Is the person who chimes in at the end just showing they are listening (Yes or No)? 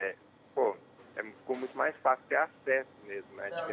No